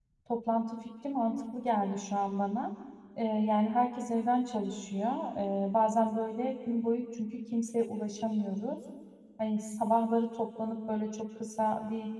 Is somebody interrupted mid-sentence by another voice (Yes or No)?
No